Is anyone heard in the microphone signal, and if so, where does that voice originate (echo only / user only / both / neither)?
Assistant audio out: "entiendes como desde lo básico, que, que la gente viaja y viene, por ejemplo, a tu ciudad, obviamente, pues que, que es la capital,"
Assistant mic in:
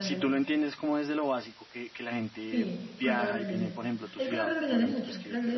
both